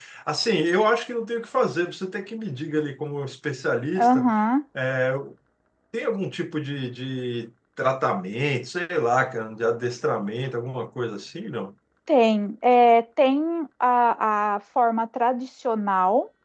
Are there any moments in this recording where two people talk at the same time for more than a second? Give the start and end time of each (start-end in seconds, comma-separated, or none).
none